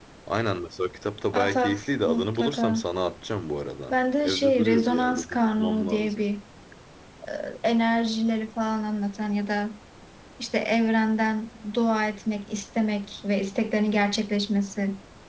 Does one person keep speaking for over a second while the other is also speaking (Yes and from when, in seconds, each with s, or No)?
Yes, from 1.3 s